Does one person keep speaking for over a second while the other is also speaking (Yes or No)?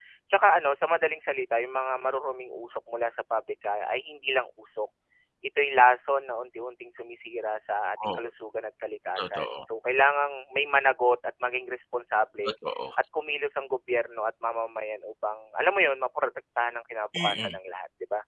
No